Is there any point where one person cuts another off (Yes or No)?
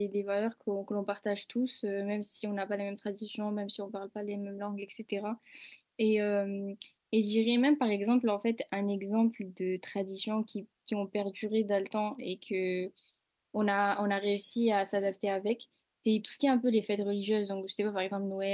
No